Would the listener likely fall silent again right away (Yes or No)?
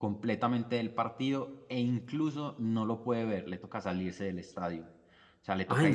No